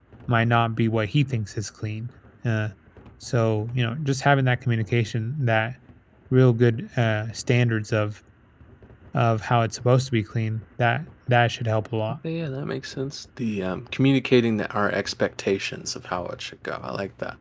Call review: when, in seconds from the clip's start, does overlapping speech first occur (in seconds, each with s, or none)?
none